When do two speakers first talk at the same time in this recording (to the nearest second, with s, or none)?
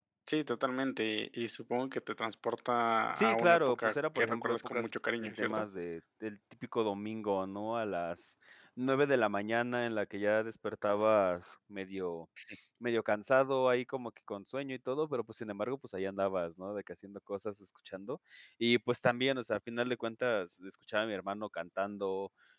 3 s